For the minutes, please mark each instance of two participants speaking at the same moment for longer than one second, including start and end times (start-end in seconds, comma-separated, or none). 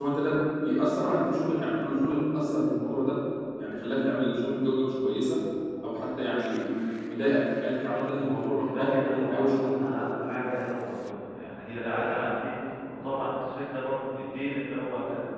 7.9-10.2